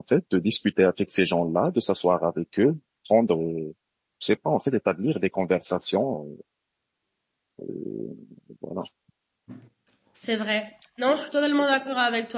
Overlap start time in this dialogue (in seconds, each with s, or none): none